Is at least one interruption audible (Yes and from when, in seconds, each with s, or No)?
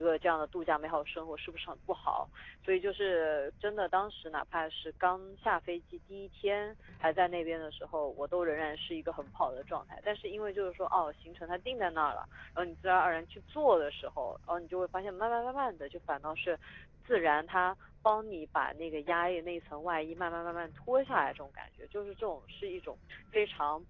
No